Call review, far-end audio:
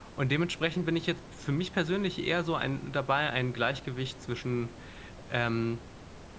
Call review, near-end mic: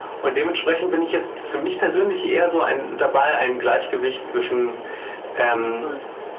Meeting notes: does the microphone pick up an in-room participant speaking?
Yes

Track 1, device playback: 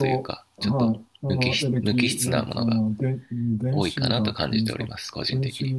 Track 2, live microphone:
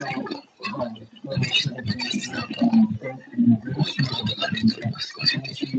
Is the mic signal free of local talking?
Yes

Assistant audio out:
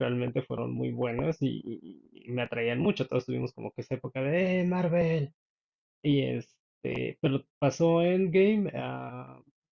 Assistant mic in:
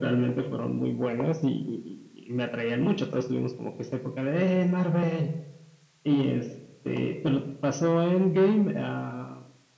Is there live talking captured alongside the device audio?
No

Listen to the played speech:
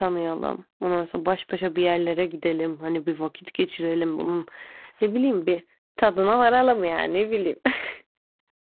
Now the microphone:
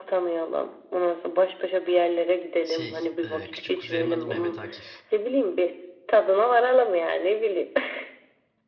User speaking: Yes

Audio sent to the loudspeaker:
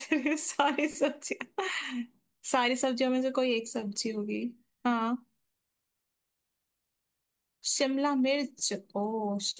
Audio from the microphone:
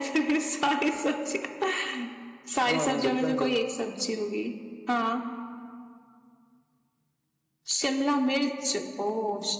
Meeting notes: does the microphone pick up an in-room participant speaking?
Yes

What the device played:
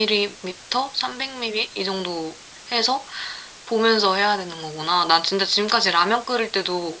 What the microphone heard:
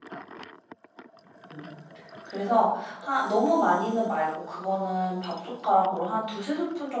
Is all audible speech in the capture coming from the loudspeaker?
No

